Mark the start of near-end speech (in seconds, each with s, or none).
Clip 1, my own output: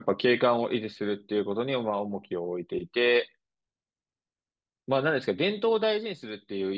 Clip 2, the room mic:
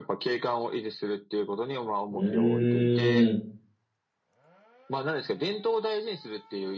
2.1 s